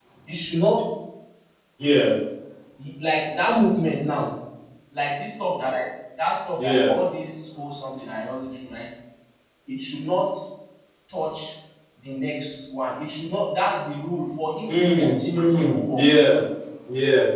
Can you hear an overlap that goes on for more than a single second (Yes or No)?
Yes